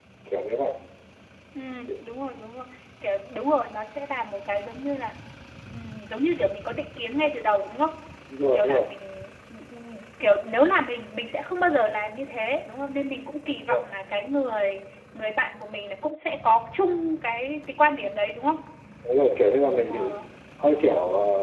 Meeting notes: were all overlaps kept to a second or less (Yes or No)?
Yes